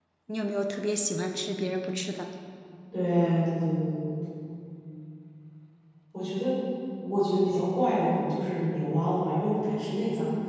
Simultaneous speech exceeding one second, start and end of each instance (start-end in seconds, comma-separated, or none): none